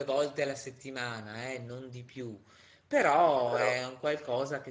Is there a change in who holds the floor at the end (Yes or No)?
No